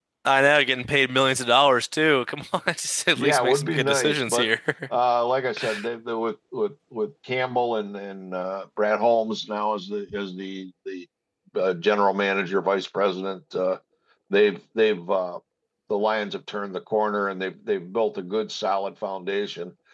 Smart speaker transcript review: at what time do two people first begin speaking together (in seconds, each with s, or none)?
3.2 s